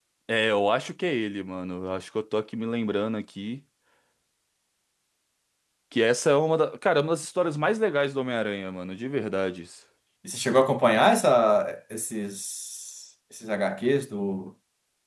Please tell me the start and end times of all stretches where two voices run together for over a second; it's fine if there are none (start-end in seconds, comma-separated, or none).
none